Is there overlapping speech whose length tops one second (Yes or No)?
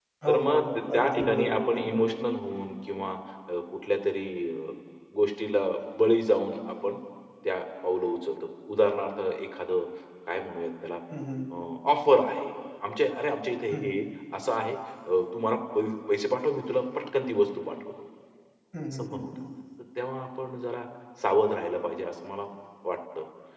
Yes